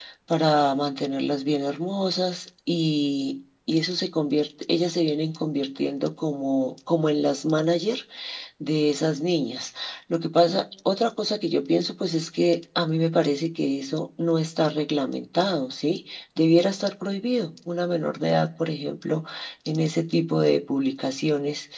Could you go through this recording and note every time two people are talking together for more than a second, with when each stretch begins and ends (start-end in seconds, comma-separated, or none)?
none